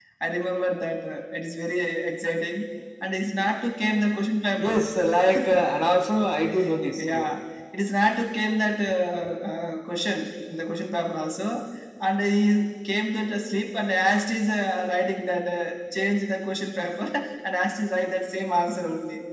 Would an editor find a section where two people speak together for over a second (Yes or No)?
No